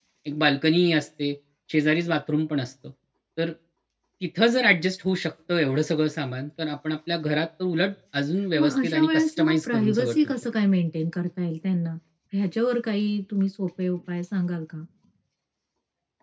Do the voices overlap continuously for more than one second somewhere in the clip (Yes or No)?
Yes